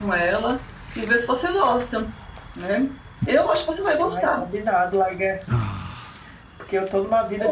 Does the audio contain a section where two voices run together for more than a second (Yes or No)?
No